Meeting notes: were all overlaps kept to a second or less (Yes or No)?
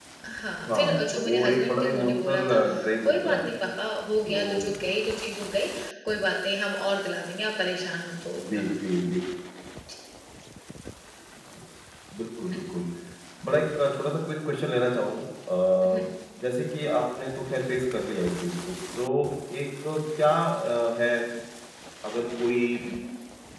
No